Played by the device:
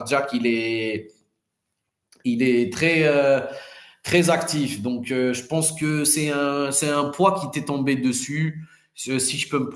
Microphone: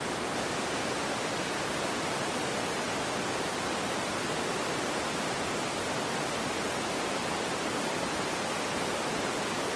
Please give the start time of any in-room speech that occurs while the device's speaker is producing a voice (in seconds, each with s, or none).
none